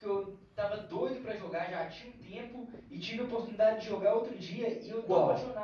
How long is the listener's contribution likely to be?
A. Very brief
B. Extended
A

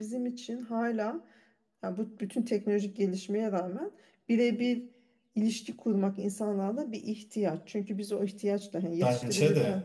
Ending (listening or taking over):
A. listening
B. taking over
A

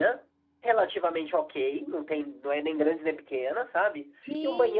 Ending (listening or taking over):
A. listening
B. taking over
A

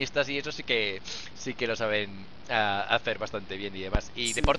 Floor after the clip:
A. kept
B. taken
A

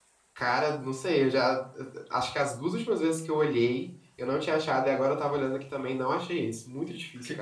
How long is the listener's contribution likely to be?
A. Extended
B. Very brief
A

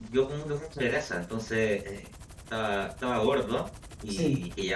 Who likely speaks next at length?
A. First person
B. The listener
A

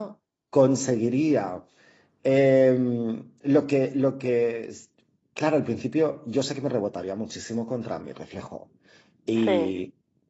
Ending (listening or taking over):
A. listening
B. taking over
A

